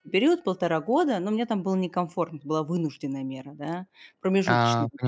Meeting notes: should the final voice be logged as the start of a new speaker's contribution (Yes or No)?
No